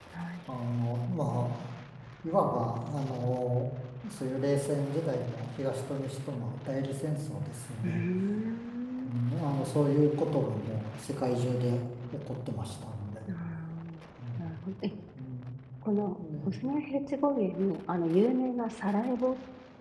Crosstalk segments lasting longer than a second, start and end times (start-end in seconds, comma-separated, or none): none